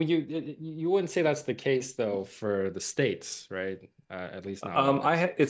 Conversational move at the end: taking over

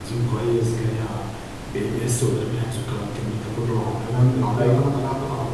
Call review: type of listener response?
listening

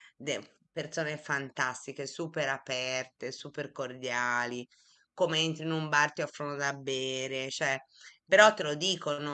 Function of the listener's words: listening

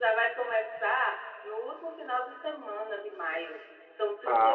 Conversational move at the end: taking over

